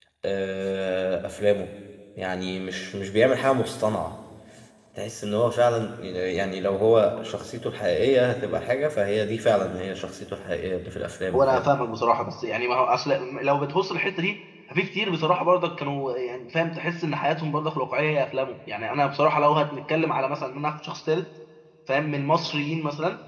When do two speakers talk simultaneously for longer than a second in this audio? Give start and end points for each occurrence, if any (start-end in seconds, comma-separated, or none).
none